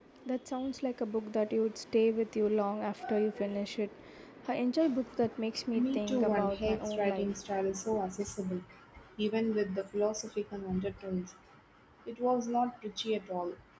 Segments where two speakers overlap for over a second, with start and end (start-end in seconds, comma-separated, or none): 5.8-7.5